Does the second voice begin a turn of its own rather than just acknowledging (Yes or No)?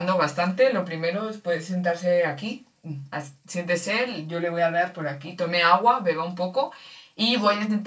No